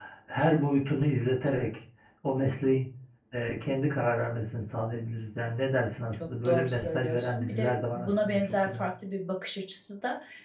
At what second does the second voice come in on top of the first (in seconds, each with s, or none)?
6.1 s